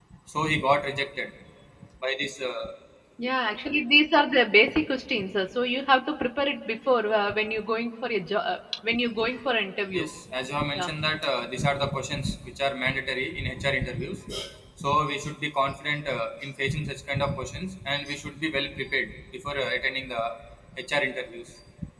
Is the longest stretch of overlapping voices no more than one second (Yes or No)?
Yes